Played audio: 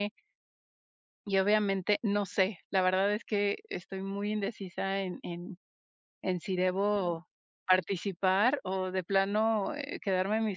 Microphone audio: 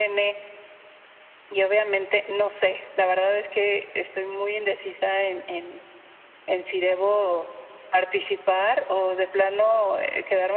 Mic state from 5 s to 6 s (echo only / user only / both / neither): echo only